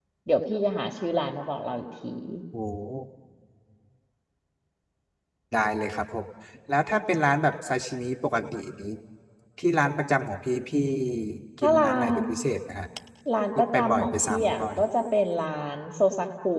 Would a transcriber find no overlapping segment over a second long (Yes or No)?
No